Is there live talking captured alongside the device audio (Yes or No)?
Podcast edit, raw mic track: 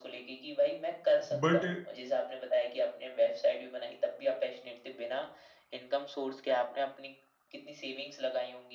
Yes